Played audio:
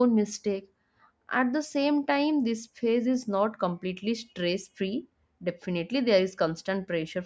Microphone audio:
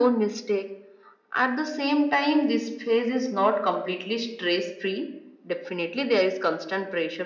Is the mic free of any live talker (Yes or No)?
Yes